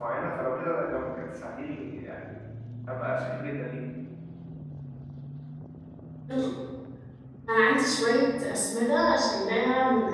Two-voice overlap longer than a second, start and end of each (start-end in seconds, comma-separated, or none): none